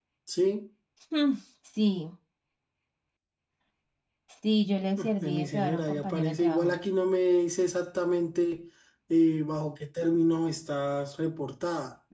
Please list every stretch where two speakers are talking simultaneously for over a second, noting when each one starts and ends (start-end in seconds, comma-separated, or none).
5.2-6.8